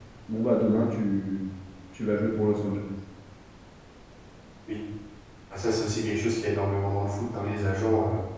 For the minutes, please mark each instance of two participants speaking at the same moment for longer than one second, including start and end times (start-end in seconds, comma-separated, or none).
none